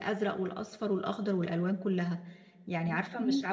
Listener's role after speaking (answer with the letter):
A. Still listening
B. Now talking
A